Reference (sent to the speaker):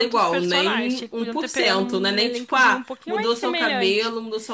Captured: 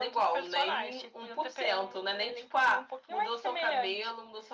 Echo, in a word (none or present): present